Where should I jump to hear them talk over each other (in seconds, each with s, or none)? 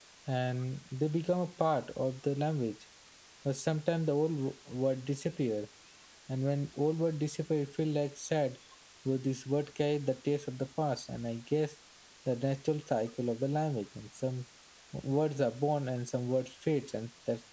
none